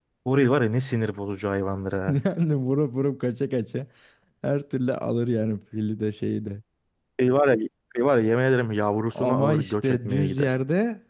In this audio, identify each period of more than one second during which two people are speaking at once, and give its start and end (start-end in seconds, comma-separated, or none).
9.2-10.6